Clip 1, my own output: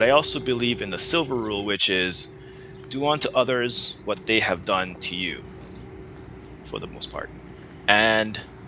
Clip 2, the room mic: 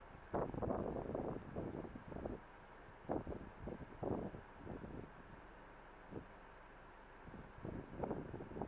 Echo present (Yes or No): No